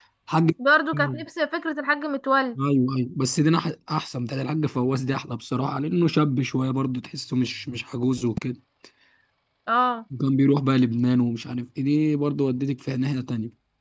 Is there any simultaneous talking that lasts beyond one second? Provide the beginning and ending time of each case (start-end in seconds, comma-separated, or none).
none